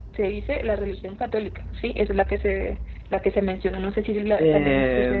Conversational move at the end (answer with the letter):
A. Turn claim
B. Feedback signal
A